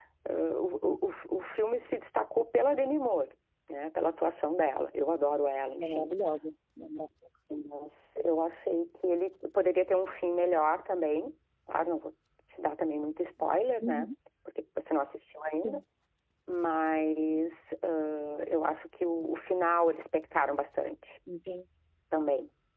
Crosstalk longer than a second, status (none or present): none